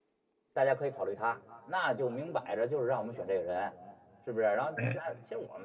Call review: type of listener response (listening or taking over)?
listening